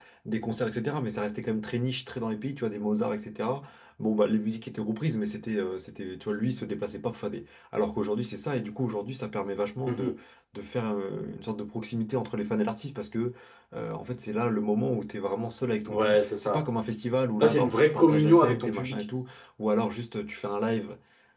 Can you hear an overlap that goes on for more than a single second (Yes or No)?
Yes